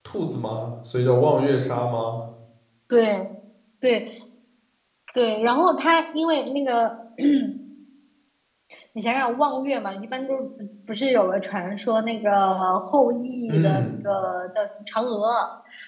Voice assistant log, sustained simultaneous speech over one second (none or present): none